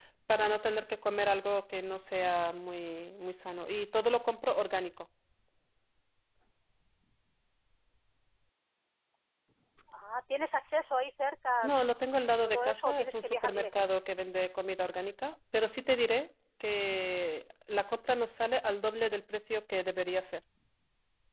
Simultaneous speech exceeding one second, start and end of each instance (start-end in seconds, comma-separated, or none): 12.4-13.8